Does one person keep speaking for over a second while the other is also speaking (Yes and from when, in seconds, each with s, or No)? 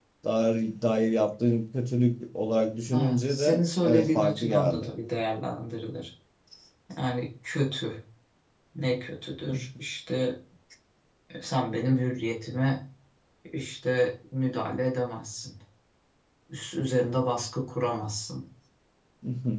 Yes, from 2.9 s